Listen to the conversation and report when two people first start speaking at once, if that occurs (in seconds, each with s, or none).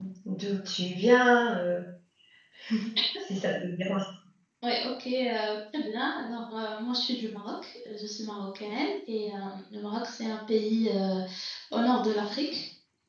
none